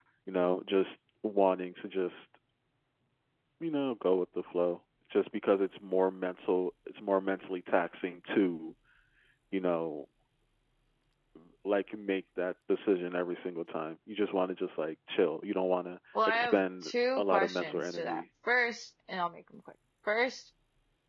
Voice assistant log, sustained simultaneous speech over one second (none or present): present